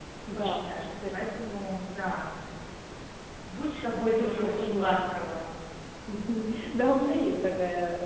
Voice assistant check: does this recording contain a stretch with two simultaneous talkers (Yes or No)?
Yes